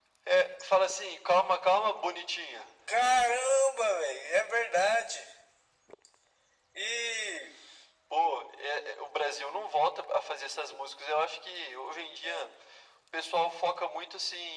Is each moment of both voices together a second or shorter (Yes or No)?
Yes